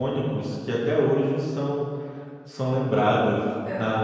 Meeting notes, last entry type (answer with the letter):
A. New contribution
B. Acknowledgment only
B